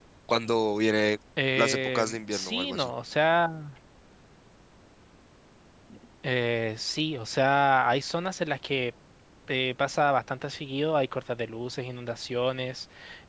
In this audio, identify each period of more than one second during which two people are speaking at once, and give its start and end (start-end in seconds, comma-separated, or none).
1.6-2.9